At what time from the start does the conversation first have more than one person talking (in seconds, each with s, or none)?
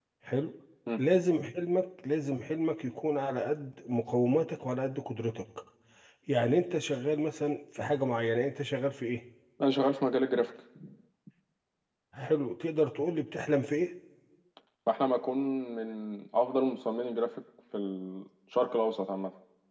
none